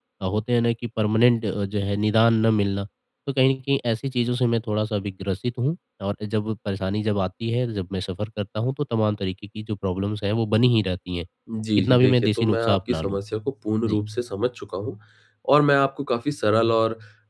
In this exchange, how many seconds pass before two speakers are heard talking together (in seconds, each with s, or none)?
11.8 s